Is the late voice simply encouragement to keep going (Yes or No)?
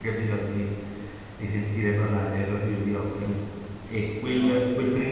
Yes